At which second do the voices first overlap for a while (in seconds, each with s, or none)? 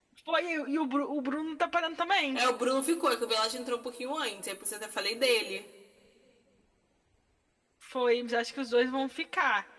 none